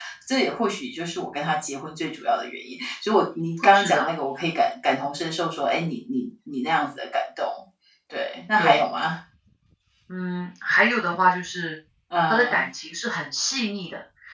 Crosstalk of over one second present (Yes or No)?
No